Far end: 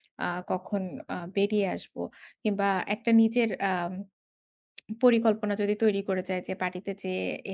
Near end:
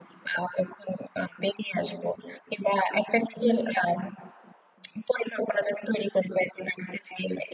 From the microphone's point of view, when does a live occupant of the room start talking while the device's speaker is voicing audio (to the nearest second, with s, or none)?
none